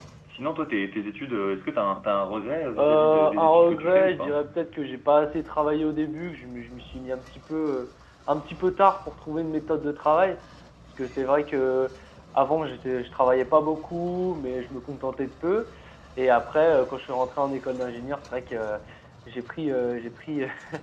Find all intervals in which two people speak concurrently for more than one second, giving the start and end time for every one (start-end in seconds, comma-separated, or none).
2.8-4.4